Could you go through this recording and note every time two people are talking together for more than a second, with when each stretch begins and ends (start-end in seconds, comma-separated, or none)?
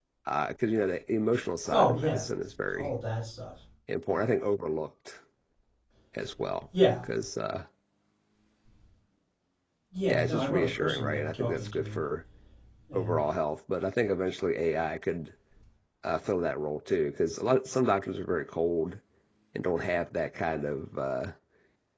10.1-12.0